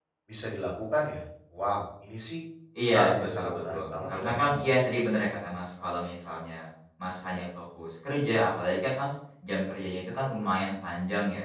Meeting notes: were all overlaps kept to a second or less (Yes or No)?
No